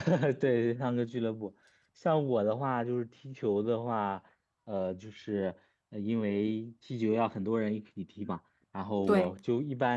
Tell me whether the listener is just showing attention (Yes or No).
Yes